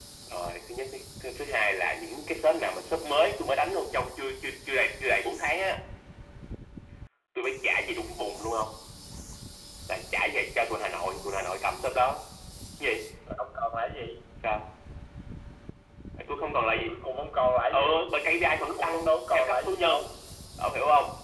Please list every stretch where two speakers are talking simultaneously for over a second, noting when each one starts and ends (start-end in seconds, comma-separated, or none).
18.6-20.0